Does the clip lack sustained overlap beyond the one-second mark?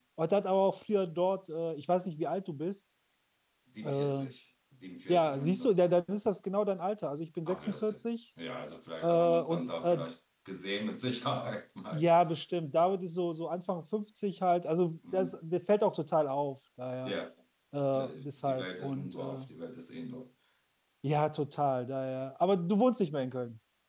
No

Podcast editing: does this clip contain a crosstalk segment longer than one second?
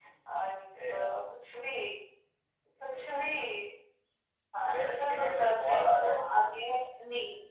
Yes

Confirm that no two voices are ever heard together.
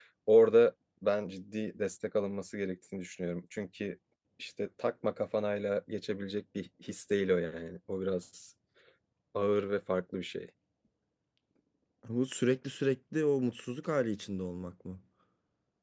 Yes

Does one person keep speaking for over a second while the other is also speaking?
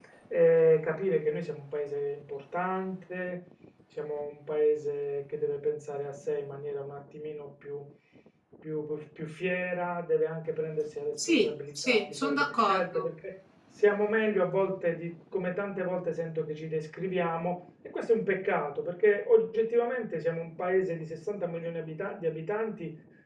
Yes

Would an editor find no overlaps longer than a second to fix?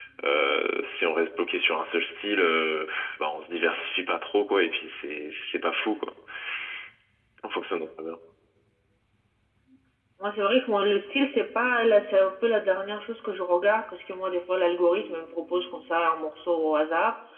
Yes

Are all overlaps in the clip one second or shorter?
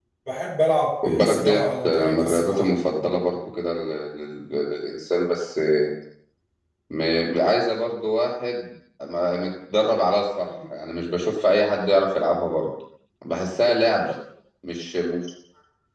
No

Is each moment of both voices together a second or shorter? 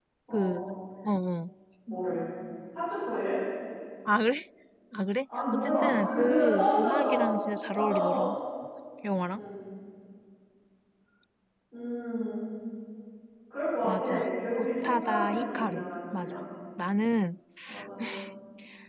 No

